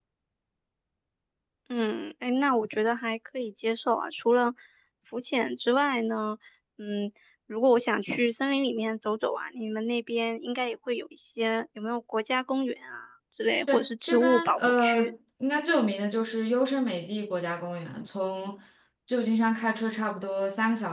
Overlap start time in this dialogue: 13.7 s

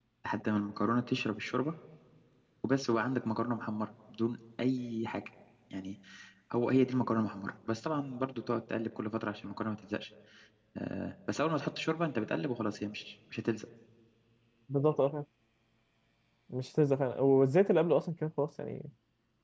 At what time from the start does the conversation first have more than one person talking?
none

